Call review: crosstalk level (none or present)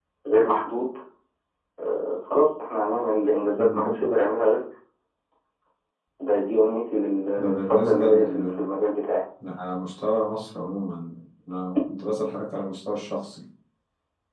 present